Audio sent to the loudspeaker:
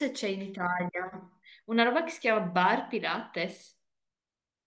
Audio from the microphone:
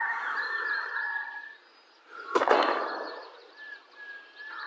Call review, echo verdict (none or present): none